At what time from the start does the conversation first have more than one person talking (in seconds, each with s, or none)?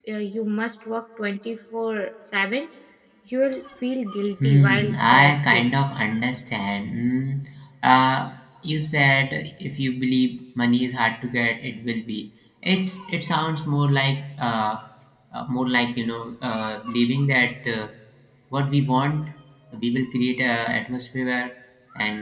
4.4 s